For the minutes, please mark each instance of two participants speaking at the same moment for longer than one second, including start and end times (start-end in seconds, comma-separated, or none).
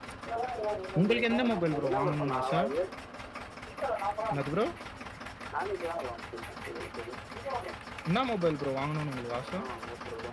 1.0-2.5